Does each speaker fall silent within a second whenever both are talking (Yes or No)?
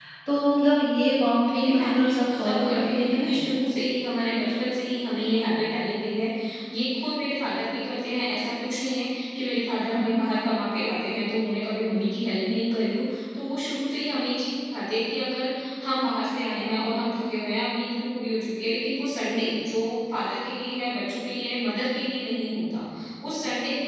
No